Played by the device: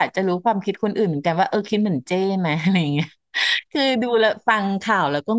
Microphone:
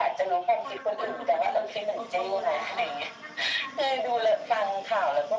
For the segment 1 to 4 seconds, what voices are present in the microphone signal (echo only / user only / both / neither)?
both